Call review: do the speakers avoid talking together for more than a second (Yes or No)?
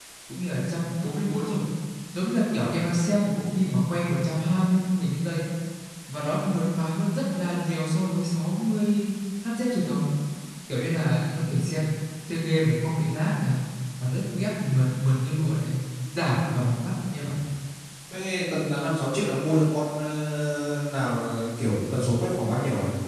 Yes